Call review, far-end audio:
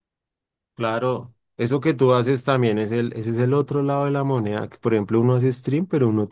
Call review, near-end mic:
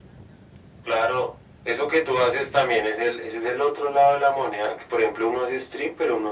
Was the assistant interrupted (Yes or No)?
No